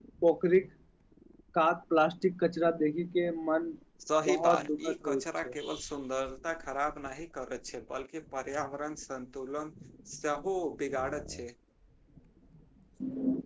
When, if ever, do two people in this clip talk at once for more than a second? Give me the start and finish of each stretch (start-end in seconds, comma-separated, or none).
4.3-5.5